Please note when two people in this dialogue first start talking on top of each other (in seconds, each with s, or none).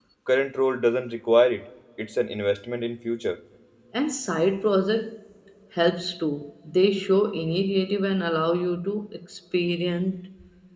none